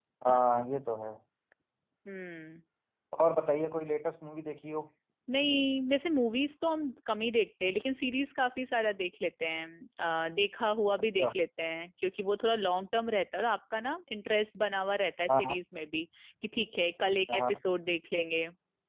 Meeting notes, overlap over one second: none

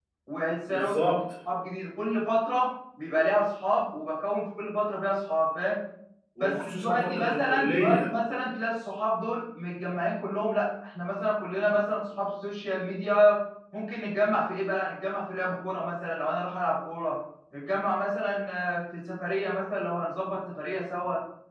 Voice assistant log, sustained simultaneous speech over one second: present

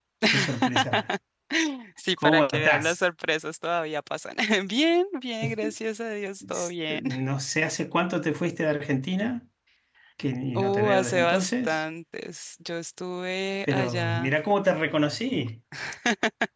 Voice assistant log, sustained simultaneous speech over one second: present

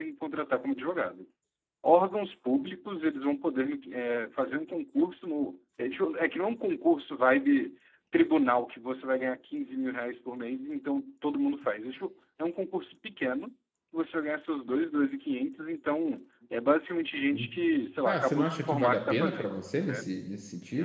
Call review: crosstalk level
present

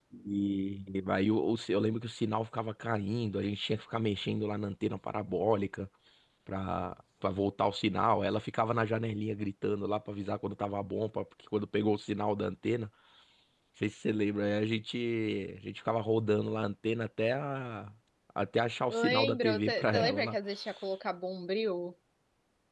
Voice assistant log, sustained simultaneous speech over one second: present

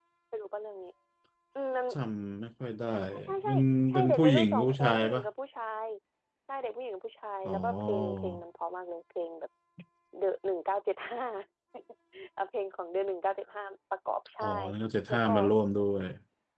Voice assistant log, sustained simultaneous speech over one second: present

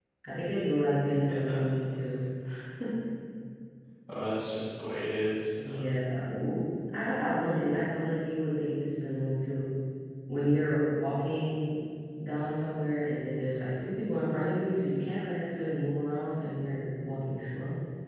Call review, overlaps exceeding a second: none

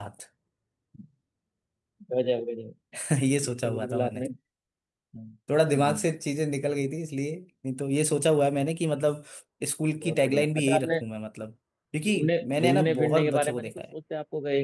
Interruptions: present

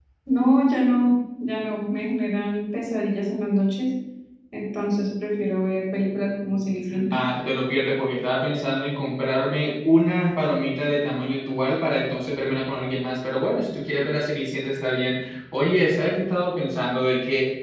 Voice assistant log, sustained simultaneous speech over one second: none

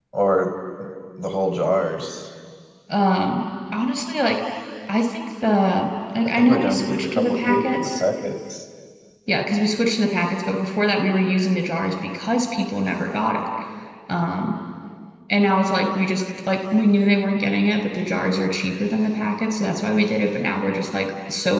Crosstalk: present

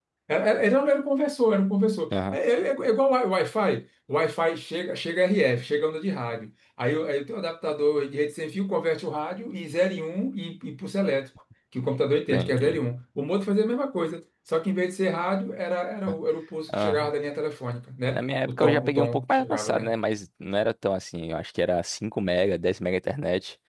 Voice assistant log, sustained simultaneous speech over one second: present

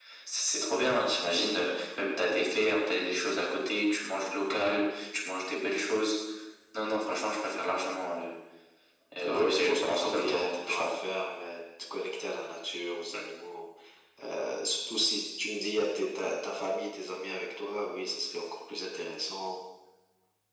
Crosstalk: present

